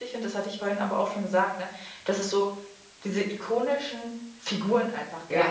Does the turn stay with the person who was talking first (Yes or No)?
Yes